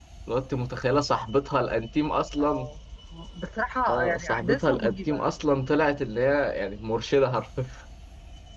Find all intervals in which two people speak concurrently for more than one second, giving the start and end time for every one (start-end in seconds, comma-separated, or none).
3.9-5.2